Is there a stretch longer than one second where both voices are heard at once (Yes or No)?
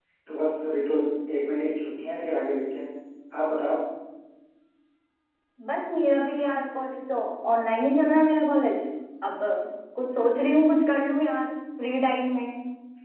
No